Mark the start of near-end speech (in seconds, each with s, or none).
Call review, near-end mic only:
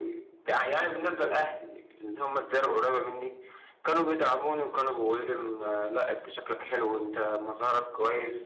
none